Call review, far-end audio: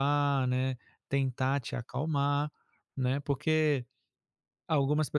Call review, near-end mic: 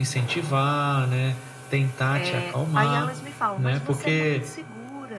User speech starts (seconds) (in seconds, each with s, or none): 2.1 s